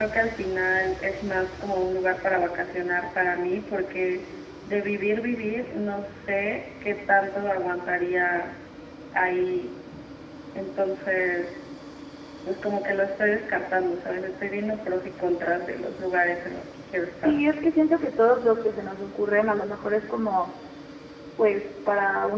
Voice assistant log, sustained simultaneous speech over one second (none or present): none